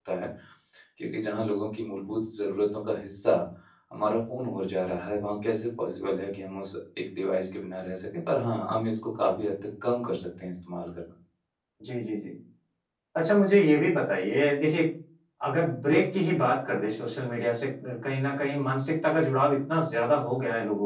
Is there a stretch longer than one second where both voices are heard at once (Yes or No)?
No